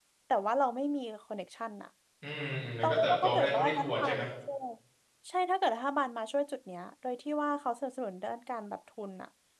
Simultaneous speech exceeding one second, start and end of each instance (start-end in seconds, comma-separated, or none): 2.8-4.2